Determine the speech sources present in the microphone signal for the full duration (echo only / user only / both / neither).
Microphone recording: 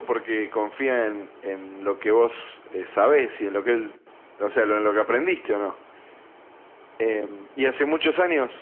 echo only